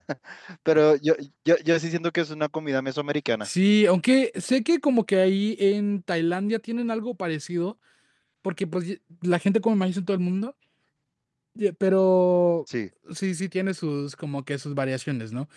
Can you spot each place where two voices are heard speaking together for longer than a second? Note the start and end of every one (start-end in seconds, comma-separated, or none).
none